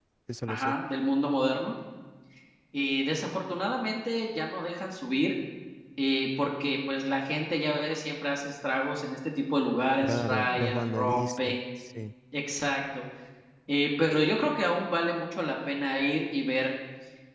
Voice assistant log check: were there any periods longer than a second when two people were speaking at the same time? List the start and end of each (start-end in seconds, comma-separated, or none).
10.0-11.6